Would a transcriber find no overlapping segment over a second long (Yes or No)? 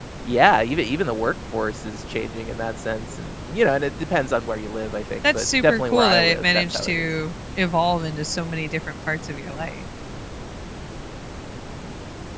No